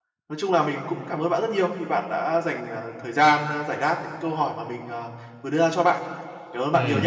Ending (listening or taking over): taking over